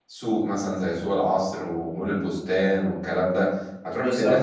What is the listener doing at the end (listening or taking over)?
listening